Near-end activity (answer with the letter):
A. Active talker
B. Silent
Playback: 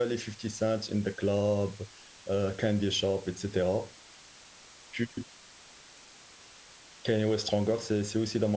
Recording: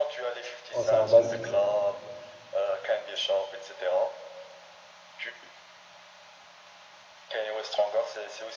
A